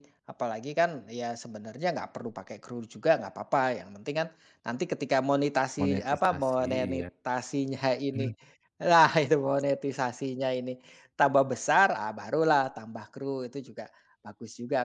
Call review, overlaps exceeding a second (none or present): present